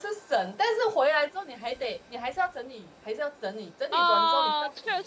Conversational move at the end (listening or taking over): taking over